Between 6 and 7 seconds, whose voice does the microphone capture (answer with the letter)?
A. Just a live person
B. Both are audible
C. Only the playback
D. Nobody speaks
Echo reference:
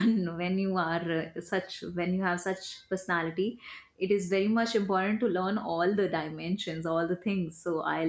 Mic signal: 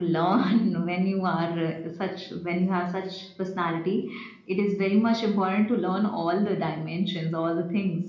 C